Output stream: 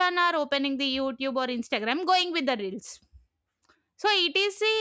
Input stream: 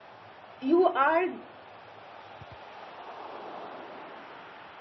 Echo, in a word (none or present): none